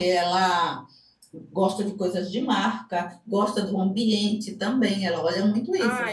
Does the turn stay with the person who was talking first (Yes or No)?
No